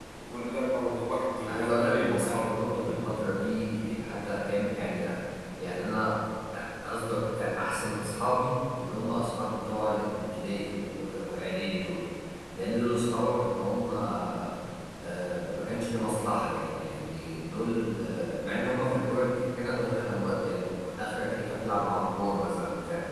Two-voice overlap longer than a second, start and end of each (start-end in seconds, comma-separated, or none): 1.5-3.2